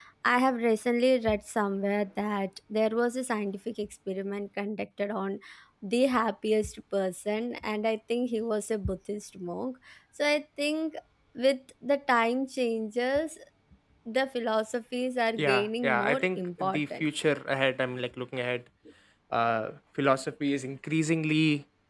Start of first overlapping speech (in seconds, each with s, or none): 15.4 s